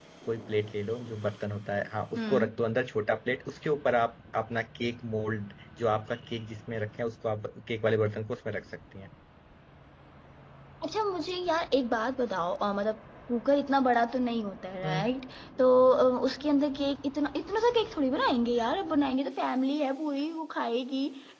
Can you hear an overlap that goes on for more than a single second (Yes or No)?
No